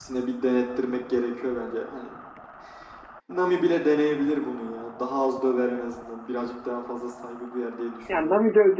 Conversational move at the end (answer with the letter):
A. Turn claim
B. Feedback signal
A